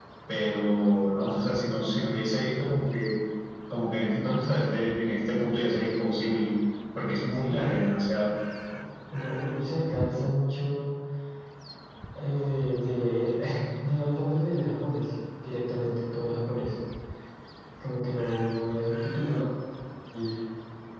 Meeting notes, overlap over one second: none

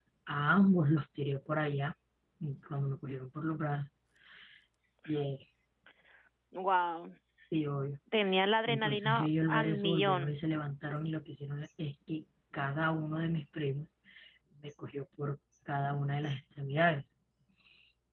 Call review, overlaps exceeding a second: present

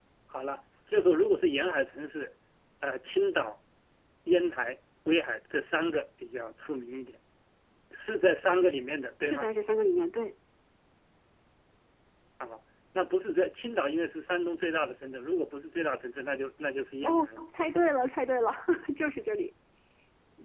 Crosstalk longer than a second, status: none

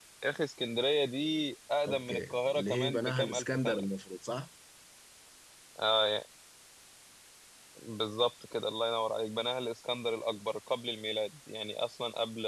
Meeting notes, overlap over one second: present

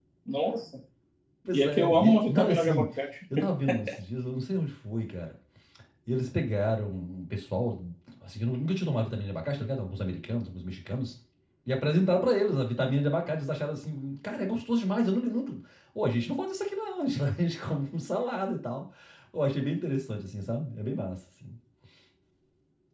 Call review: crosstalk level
present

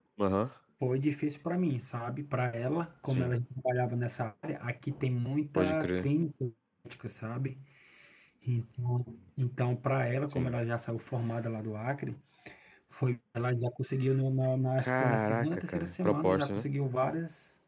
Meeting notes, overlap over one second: present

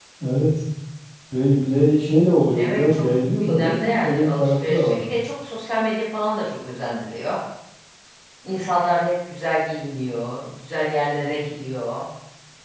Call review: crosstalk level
present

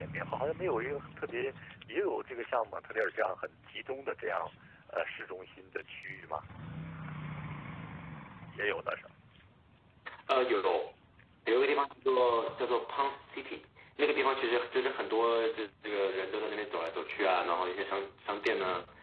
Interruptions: none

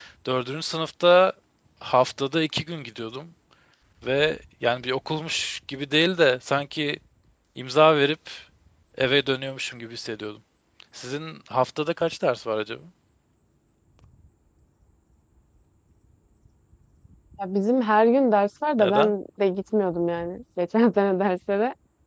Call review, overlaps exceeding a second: none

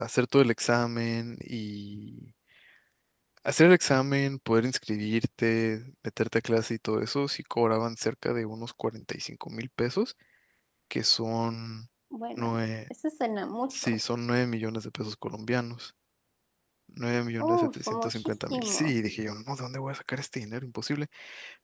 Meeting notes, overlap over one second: present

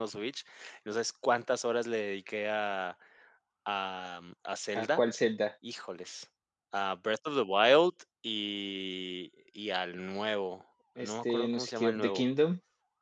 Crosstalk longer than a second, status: present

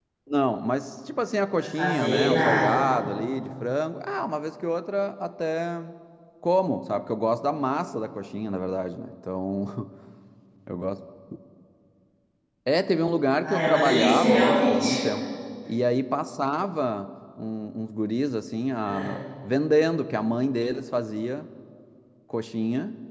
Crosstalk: present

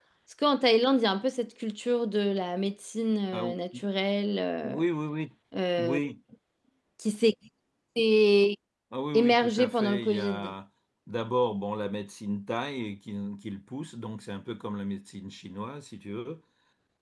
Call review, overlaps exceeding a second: present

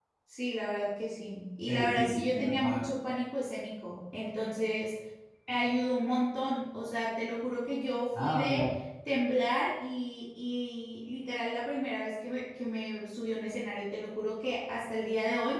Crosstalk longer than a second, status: present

